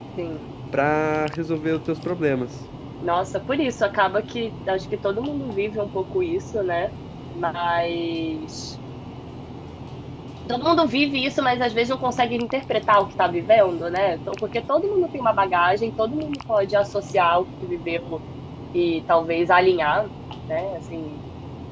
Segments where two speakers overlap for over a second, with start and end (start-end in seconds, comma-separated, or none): none